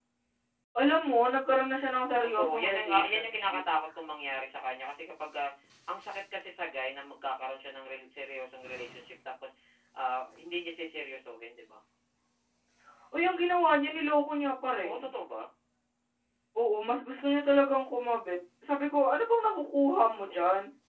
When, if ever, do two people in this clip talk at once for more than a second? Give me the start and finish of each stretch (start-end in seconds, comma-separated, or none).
2.2-3.6